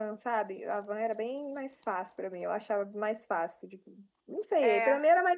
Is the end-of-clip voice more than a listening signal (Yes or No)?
No